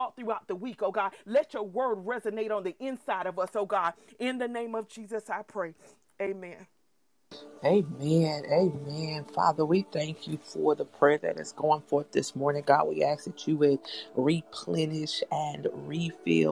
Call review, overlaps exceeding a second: none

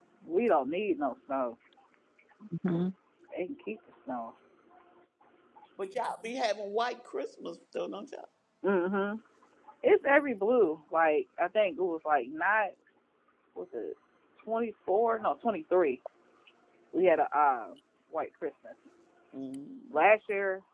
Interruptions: none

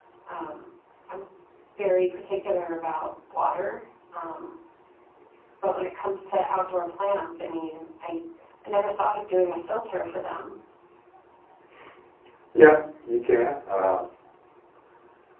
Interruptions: none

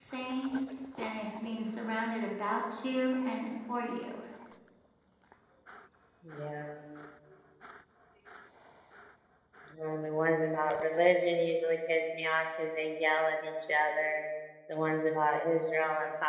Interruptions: none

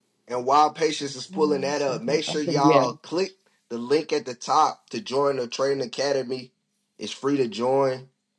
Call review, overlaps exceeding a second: present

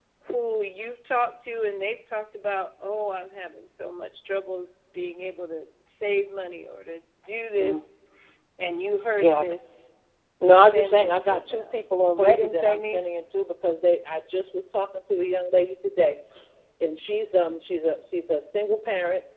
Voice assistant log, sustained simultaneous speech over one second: present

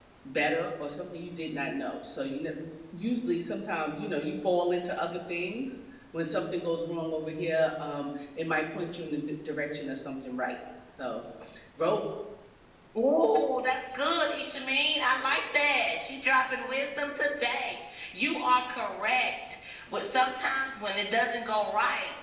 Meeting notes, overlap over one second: none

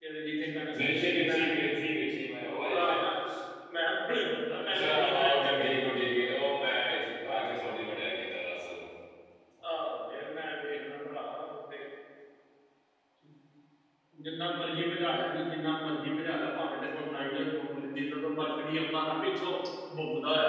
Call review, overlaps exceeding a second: present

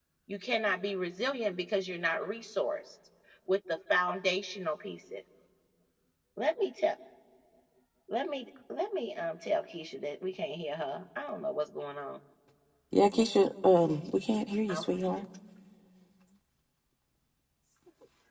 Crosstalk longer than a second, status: none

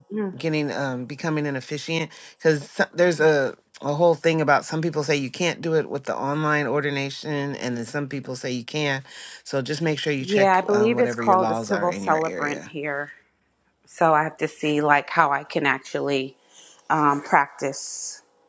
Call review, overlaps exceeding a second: present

